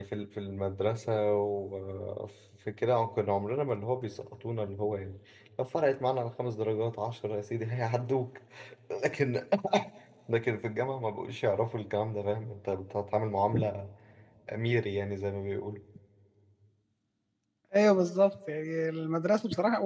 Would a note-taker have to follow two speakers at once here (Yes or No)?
No